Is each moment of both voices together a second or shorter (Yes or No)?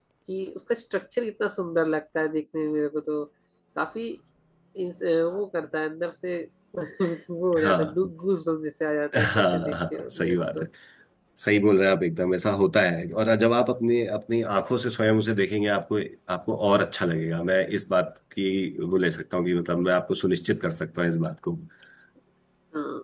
No